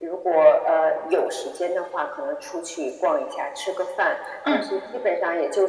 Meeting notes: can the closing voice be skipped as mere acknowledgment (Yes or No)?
Yes